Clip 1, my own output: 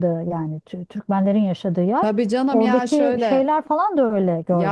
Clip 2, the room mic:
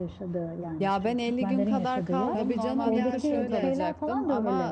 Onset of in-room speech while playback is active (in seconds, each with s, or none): 0.8 s